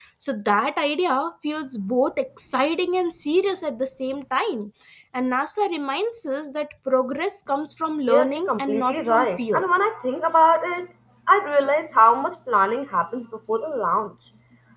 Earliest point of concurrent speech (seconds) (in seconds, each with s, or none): 8.1 s